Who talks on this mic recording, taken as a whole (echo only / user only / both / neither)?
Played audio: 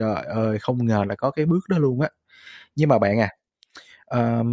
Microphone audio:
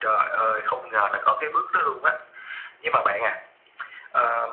echo only